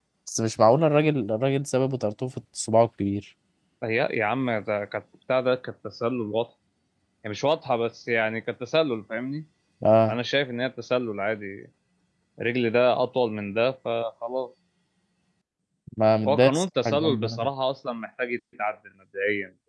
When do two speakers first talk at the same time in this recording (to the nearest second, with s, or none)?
16 s